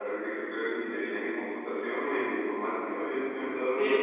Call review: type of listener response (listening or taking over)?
taking over